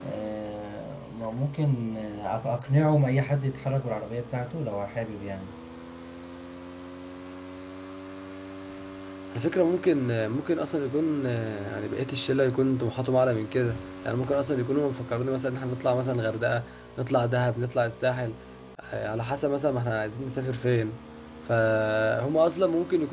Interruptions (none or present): none